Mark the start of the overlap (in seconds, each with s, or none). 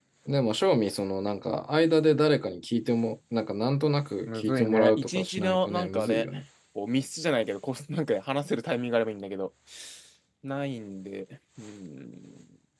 4.3 s